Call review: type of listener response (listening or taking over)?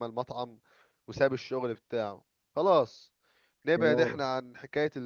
listening